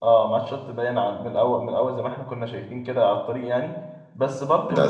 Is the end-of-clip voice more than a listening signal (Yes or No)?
No